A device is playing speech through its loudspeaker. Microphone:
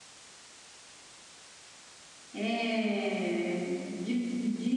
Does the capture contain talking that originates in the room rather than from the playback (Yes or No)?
Yes